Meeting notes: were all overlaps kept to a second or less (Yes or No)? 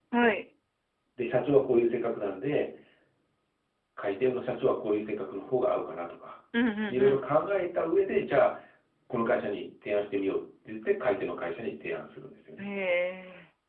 Yes